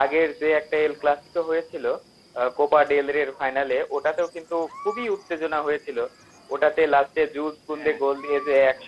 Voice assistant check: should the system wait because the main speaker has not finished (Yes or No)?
Yes